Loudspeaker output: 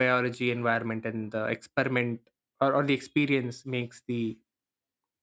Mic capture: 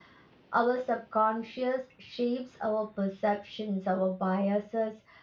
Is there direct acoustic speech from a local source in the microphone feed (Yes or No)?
Yes